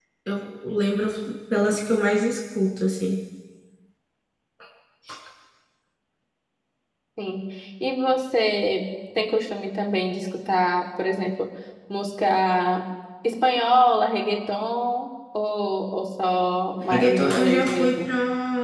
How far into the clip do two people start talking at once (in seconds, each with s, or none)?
16.8 s